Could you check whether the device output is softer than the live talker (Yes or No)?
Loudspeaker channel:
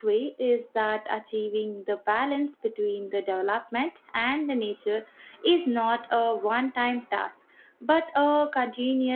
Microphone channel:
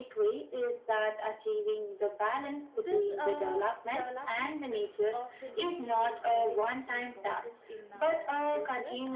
No